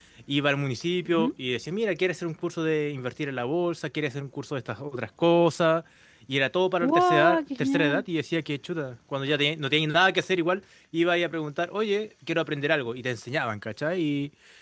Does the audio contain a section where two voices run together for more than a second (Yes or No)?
Yes